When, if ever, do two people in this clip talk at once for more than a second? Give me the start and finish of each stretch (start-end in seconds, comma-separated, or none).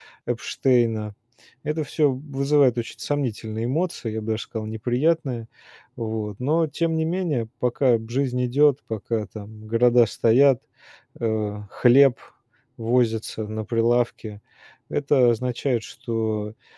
none